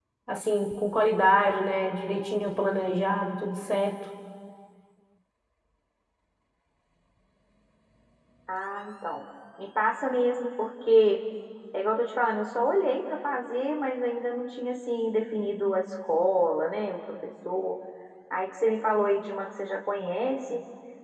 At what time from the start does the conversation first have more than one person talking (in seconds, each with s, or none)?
none